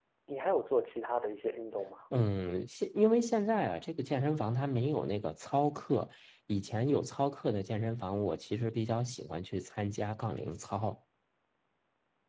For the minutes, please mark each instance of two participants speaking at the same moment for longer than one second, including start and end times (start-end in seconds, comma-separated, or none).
none